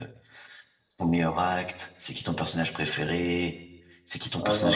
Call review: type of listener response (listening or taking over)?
listening